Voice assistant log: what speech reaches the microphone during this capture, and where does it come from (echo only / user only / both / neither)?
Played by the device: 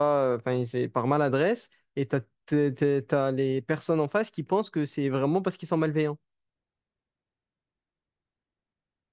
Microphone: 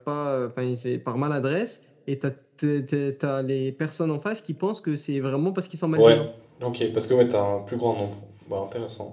both